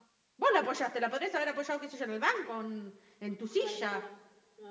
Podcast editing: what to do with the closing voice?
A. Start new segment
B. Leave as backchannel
A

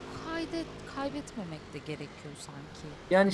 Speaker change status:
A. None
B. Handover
B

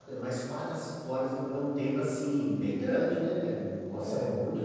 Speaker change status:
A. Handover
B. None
A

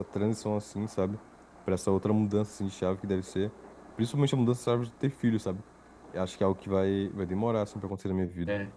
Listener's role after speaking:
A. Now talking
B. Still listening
A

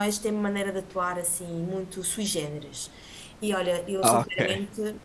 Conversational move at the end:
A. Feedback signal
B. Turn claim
A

